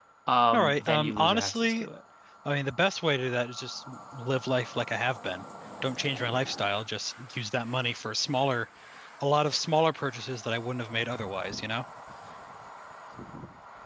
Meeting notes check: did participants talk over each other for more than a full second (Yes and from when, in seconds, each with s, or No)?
Yes, from 0.5 s